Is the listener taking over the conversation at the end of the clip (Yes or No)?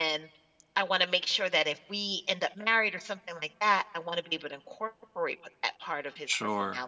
Yes